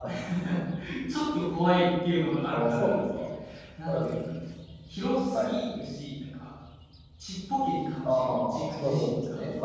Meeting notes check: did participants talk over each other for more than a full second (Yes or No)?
Yes